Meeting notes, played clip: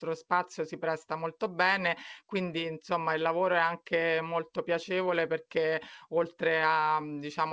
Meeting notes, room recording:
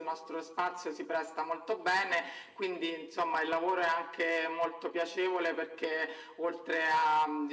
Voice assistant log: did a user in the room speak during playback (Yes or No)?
No